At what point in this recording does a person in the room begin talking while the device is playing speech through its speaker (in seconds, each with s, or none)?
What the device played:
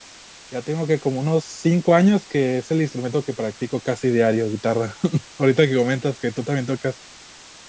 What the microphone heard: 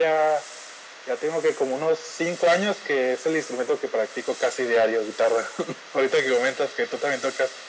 none